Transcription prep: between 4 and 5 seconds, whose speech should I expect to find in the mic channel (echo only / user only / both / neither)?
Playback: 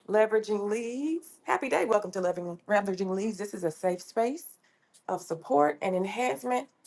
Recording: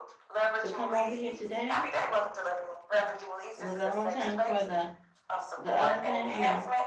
both